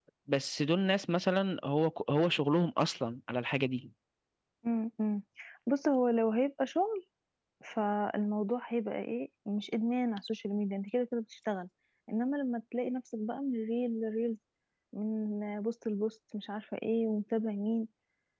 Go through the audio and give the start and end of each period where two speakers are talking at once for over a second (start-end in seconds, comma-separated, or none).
none